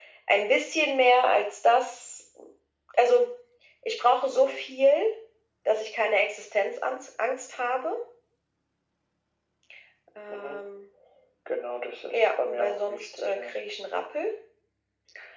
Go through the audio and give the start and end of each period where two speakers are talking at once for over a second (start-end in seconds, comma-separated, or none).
12.1-13.5